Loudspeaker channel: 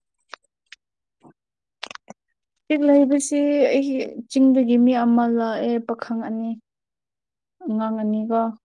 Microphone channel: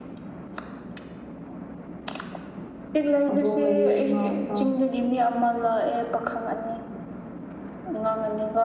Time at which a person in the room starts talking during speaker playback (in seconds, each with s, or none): 3.3 s